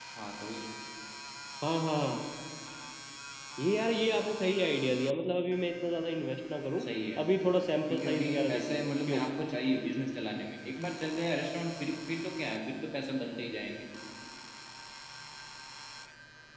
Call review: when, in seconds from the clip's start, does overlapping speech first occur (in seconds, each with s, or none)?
7.9 s